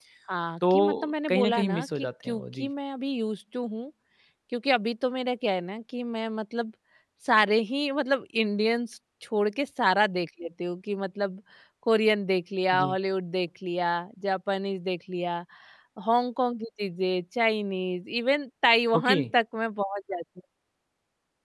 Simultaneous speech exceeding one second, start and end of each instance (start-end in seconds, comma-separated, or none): 1.3-2.7